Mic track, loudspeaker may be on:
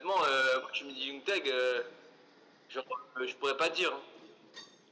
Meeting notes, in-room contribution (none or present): none